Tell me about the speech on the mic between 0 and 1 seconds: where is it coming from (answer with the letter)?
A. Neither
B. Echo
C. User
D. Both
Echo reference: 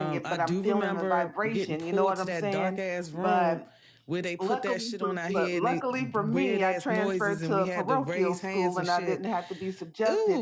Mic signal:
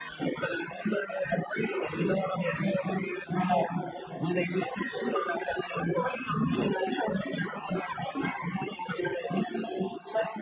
B